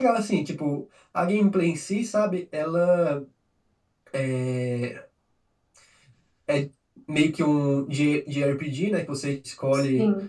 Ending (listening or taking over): listening